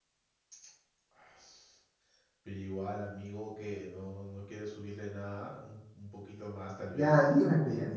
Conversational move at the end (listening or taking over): taking over